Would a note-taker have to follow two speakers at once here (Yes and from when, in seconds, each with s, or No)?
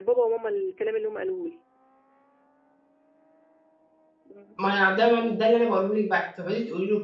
No